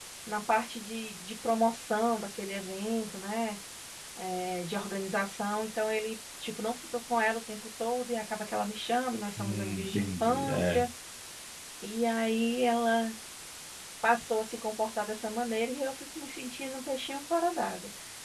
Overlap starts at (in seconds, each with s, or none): 9.4 s